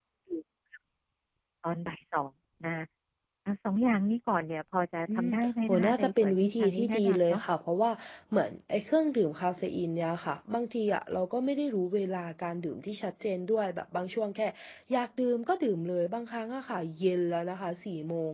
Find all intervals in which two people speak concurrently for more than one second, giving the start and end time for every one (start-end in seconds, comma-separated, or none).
5.2-7.4